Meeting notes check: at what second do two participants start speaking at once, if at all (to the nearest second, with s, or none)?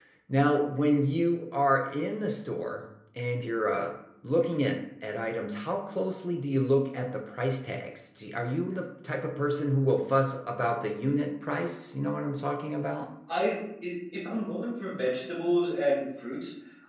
none